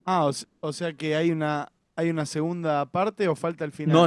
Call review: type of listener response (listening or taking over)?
taking over